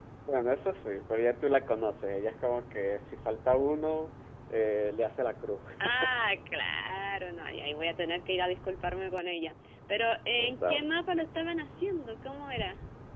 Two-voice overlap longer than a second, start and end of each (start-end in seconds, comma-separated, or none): none